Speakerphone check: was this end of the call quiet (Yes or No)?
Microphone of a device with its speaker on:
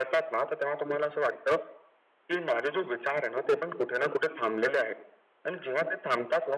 Yes